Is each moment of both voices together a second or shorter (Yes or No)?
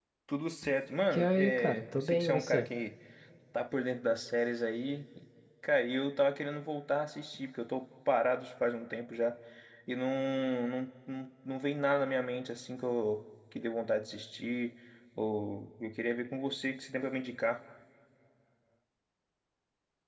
No